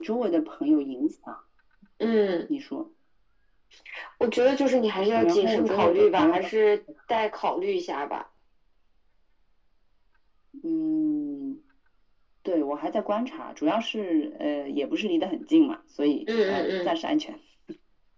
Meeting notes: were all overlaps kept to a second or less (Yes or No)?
No